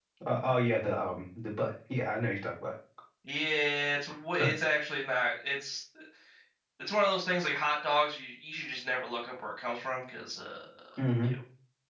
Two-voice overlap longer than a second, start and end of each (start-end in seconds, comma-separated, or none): none